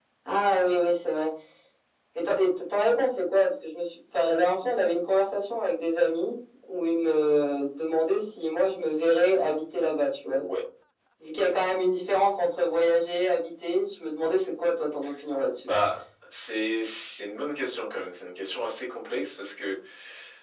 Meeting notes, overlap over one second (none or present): none